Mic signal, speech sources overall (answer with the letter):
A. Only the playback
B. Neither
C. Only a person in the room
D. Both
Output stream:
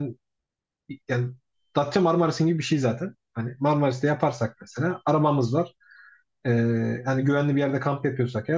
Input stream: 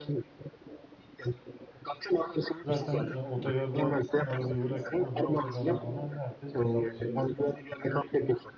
D